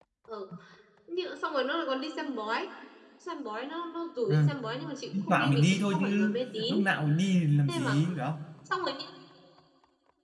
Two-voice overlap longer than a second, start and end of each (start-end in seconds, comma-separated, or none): 5.1-6.3